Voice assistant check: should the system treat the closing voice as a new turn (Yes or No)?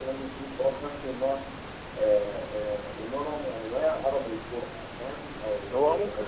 Yes